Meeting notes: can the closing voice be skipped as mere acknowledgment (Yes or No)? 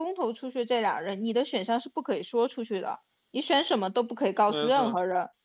Yes